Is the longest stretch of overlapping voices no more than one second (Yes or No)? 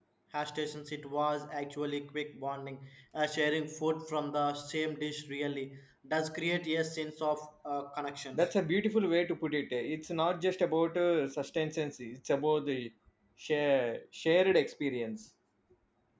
Yes